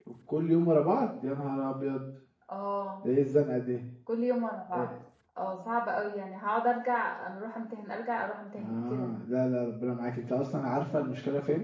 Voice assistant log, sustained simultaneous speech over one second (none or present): none